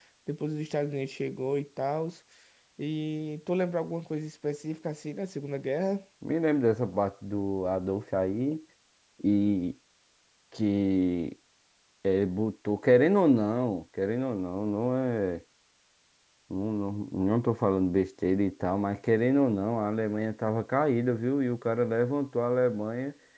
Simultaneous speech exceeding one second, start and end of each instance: none

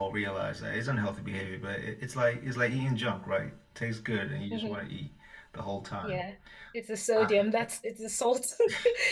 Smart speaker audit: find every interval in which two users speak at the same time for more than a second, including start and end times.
none

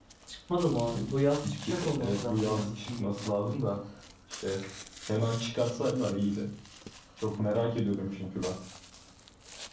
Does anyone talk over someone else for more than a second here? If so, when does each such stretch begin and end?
1.7-3.1

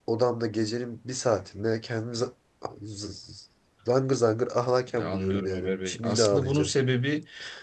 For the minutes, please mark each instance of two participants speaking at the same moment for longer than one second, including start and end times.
4.9-6.7

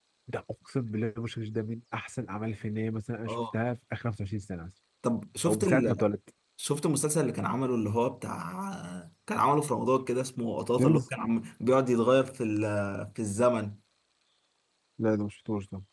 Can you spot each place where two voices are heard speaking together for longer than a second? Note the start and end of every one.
none

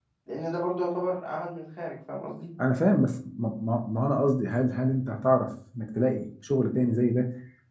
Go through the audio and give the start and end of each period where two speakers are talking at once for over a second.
none

